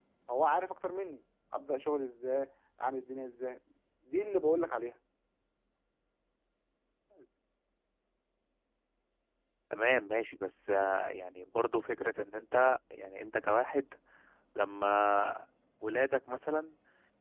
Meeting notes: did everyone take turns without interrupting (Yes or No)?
Yes